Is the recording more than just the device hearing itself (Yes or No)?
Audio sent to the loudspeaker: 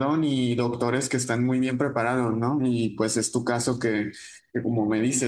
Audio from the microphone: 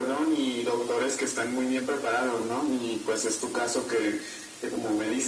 No